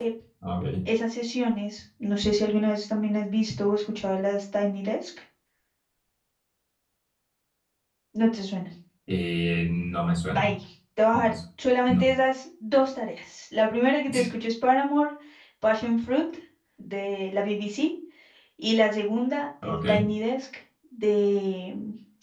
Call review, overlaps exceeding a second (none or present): none